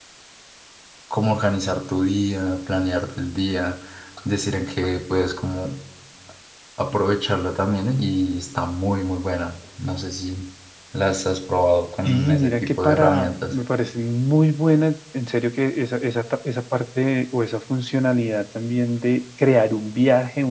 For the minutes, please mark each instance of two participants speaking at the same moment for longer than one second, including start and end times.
12.0-13.5

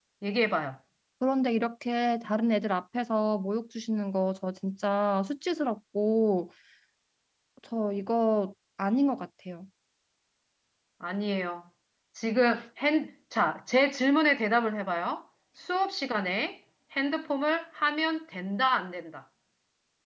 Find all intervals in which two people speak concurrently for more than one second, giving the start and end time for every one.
none

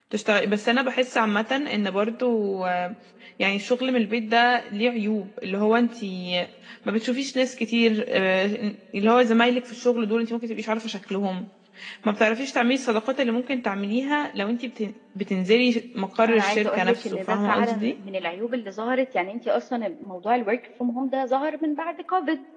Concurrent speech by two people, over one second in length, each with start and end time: 16.3-18.0

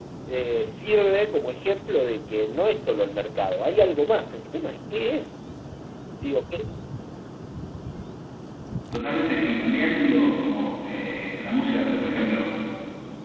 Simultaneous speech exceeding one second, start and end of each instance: none

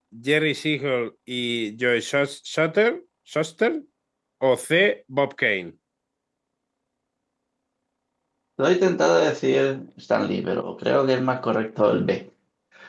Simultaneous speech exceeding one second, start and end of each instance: none

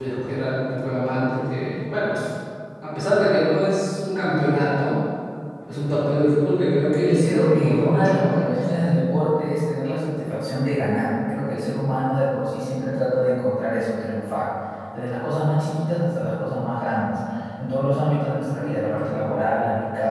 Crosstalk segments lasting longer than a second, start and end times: 7.0-8.5

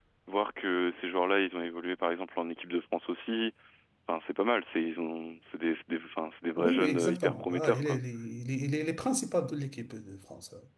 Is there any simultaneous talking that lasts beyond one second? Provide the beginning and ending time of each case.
6.6-8.0

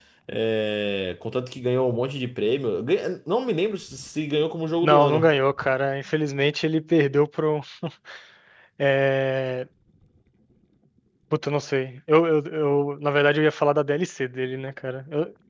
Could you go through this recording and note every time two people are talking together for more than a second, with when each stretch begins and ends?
none

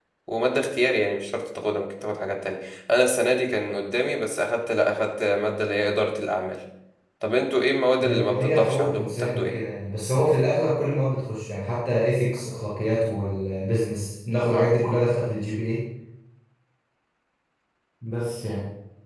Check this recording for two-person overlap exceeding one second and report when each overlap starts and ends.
8.0-9.5

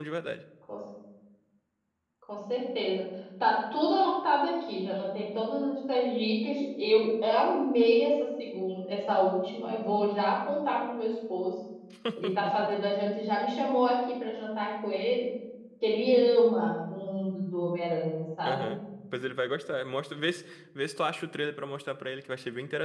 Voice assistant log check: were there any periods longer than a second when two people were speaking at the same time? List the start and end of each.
none

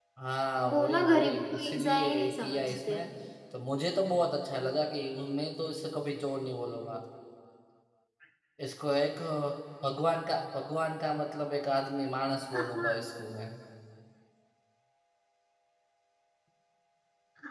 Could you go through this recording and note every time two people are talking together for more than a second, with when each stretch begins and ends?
0.7-3.0

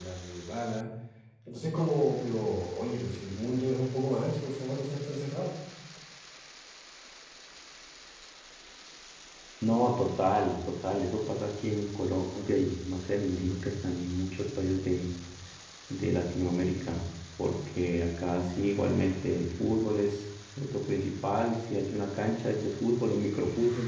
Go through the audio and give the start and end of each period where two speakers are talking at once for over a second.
none

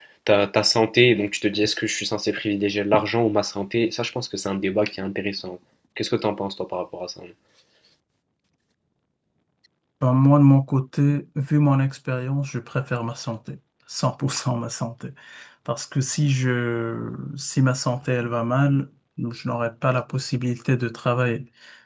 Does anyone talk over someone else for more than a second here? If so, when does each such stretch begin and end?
none

